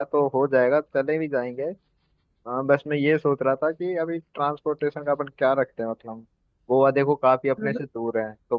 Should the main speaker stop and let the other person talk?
No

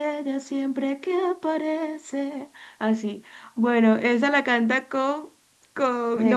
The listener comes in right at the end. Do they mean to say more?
No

